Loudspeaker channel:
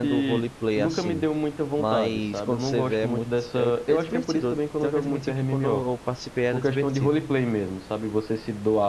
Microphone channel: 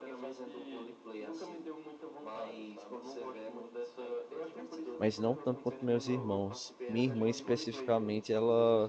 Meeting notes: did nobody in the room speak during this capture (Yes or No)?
No